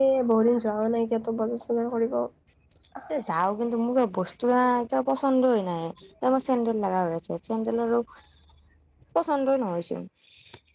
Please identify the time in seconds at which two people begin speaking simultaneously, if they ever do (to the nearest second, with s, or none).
none